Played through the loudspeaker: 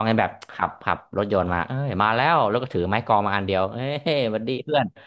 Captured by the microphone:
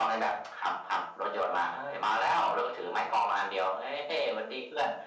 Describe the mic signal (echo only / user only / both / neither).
echo only